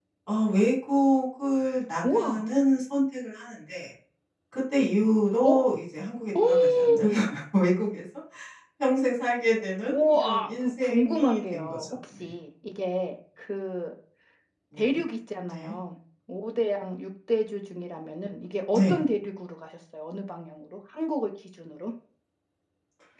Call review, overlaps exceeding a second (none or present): present